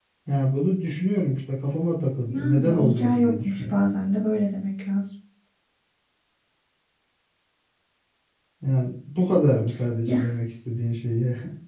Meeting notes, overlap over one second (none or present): present